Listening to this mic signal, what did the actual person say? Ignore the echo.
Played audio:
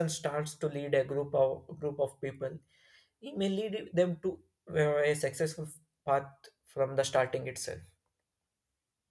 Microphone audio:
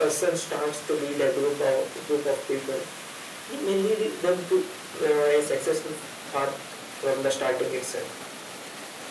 none

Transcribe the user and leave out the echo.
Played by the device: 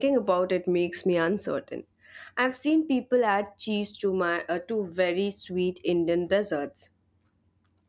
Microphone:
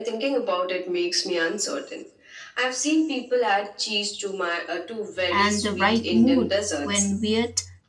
and the right mood when weird

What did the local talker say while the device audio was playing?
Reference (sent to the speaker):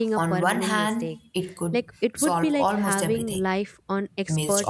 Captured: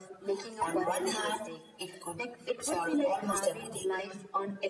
none

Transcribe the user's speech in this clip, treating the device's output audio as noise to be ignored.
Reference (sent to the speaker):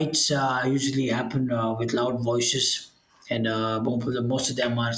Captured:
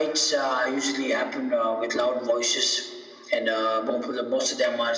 none

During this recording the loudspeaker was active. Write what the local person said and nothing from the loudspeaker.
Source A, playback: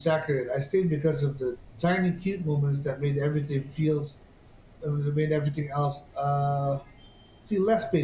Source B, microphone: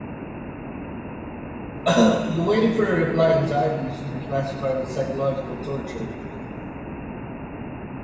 The waiting for a reply anxiety should be classified as psychological torture.

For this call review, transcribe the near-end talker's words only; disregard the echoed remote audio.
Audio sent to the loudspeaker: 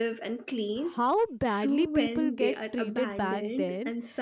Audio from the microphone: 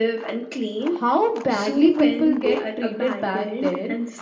none

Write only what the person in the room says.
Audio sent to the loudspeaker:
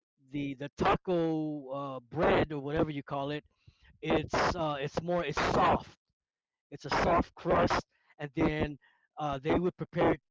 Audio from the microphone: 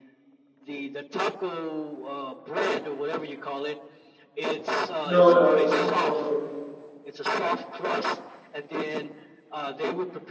No, no, no, no, no.

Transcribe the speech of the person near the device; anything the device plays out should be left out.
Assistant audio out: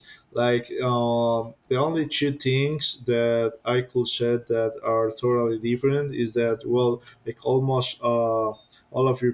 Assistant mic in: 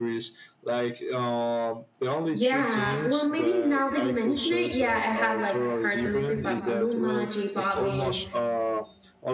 Yeah, well, maybe now that you mention it, yeah, I have like heard some music by Maluma, J Balvin,

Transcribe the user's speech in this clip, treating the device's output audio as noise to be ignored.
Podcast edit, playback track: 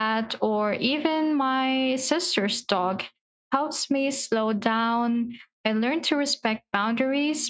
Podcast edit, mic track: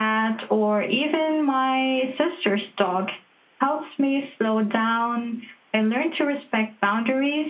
none

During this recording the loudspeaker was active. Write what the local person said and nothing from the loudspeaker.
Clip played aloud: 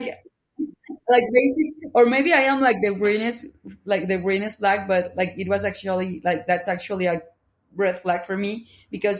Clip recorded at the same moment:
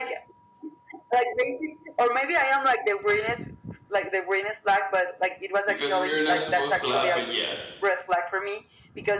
because we're not supposed to laugh, but yes.

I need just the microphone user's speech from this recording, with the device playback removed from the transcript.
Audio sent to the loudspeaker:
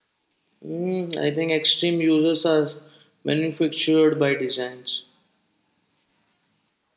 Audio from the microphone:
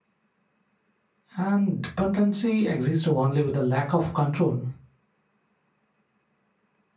and dependency exists only with the lack of control

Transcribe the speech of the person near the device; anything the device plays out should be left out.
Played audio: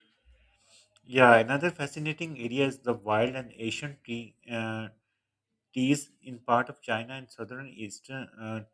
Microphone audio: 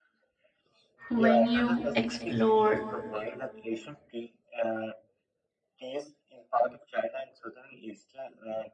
When you explore

